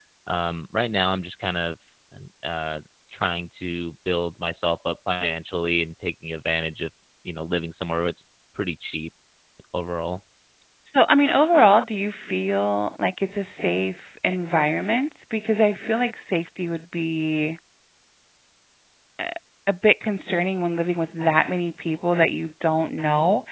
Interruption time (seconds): none

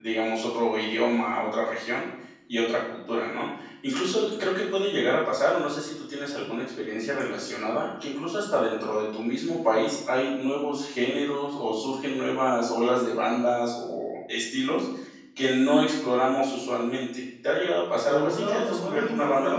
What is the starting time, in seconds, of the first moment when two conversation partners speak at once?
18.1 s

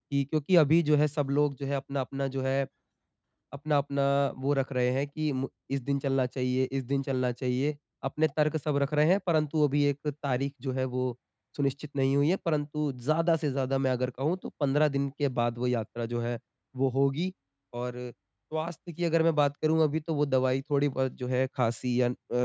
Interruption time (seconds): none

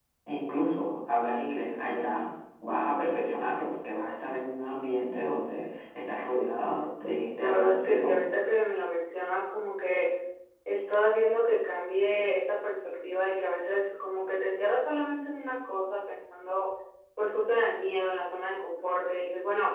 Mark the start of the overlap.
6.3 s

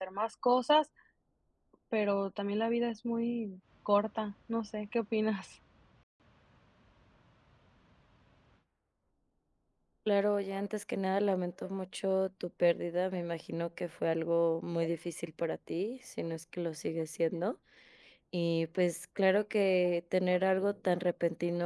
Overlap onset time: none

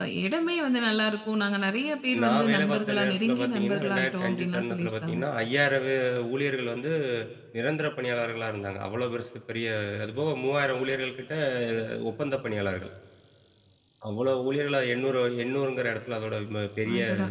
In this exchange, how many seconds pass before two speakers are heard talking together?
2.2 s

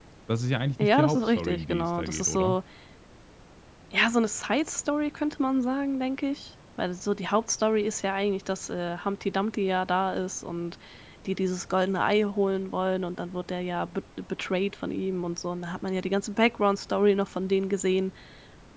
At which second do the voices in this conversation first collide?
0.8 s

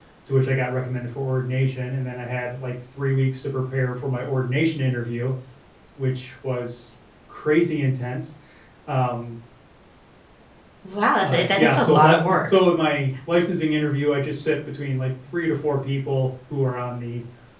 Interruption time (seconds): 11.2 s

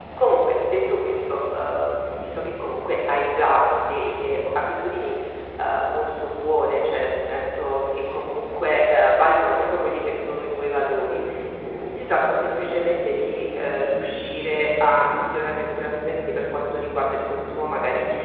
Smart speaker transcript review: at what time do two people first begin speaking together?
none

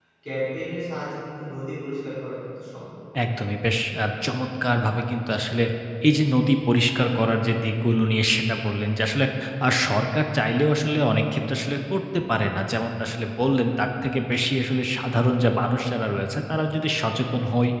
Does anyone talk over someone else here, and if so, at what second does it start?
none

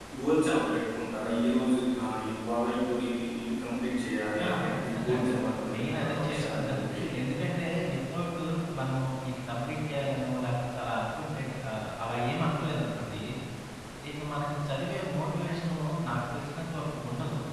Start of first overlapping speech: 4.4 s

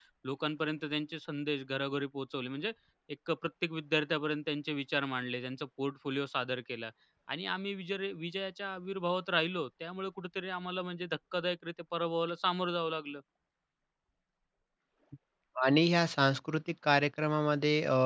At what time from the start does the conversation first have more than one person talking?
none

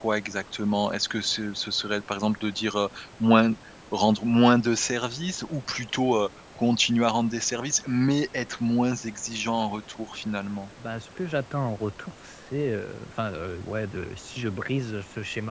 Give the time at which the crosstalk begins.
none

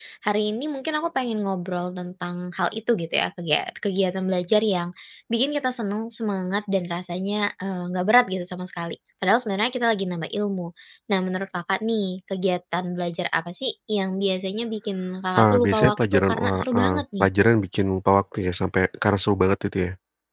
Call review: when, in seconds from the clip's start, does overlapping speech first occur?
15.4 s

